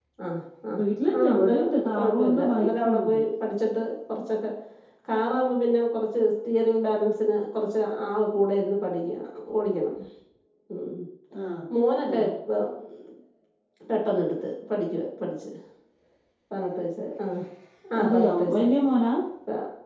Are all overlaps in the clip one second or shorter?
No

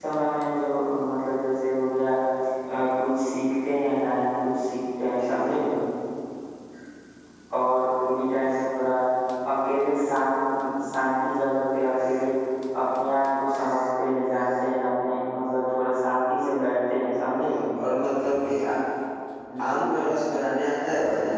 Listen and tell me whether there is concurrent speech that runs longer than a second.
No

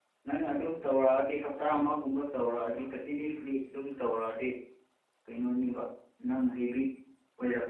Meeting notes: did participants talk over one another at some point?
No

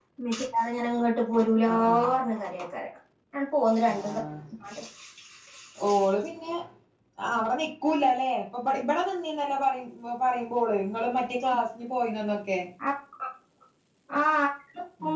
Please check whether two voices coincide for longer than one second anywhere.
No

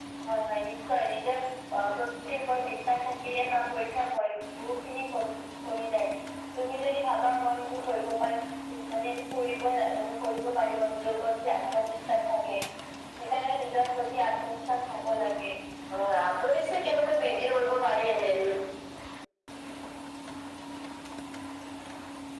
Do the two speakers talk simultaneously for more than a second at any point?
No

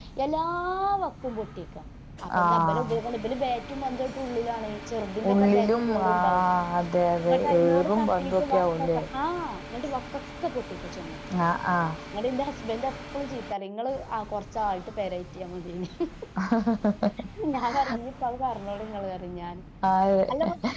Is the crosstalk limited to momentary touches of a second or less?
No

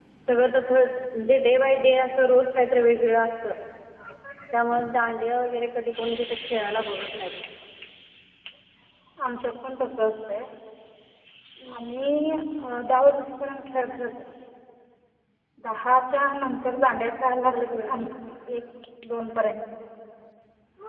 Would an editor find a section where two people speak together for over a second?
No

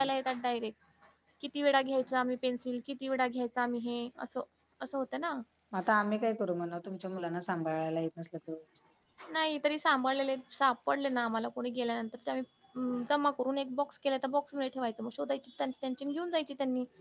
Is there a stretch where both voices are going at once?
No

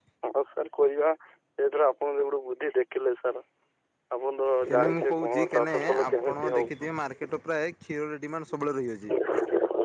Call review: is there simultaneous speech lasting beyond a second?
Yes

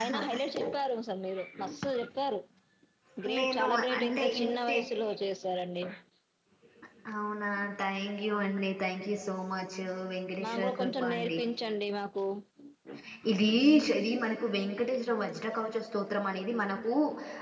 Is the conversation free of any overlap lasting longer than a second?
No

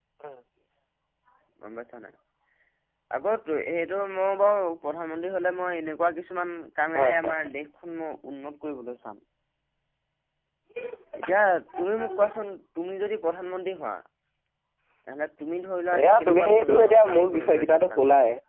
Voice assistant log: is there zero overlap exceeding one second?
No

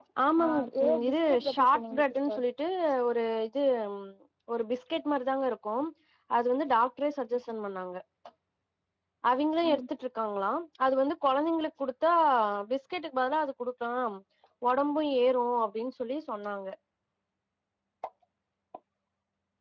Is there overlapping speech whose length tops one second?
Yes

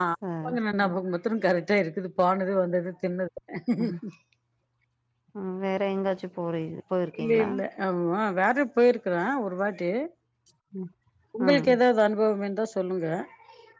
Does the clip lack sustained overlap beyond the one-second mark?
Yes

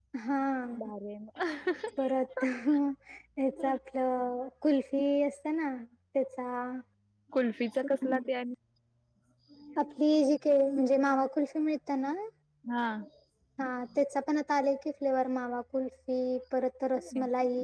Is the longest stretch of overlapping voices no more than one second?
Yes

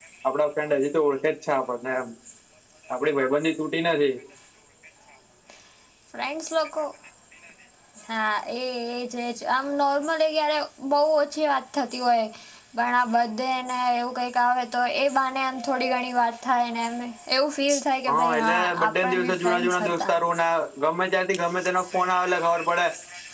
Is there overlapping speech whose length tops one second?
Yes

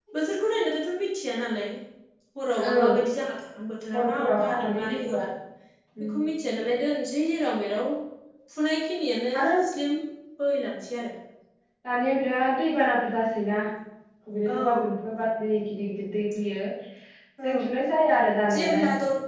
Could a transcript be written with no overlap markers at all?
No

